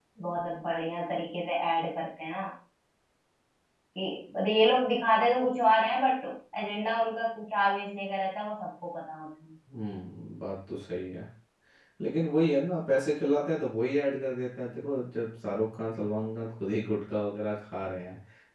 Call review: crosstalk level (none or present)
none